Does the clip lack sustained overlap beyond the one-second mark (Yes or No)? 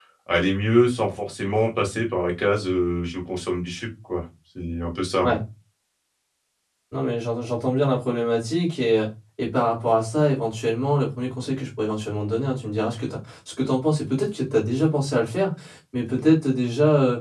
Yes